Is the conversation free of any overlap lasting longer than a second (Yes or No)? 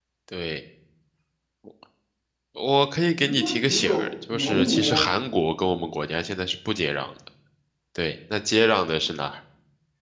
No